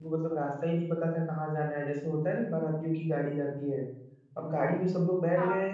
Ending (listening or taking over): listening